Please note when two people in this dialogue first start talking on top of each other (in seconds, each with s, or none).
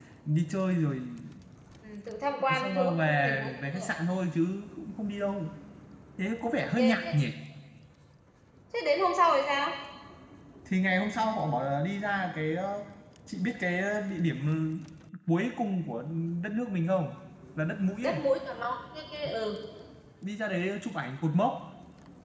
2.5 s